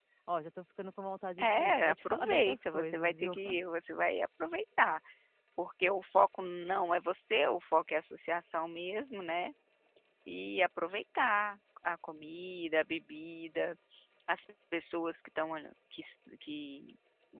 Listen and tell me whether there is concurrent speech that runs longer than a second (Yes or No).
Yes